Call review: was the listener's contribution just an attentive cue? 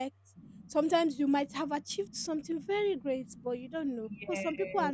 Yes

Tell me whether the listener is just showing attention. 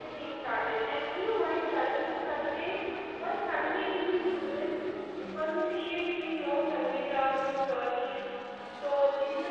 Yes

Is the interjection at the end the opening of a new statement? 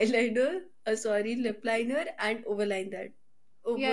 Yes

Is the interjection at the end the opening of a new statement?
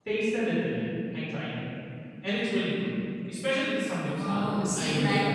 Yes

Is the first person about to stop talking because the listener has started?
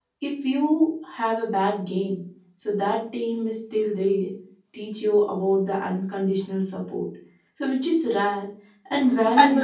No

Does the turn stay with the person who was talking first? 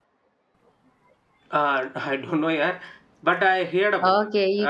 No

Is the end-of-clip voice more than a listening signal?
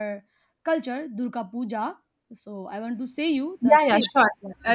Yes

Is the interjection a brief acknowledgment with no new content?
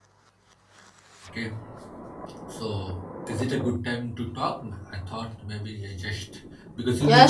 No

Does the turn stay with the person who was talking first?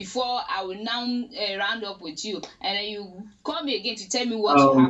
No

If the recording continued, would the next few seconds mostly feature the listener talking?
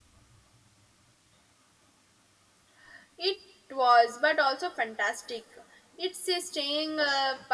No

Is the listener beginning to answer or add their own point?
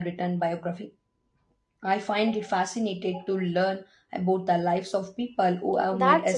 Yes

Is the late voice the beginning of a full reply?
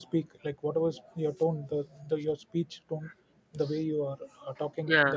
No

